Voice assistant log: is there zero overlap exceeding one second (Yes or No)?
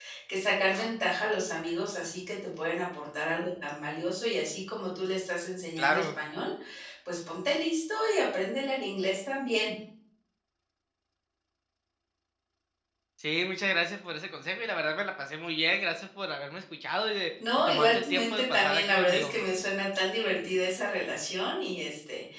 No